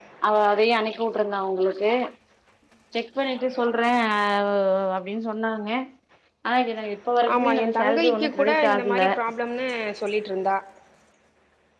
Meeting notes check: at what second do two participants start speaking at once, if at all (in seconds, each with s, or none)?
7.3 s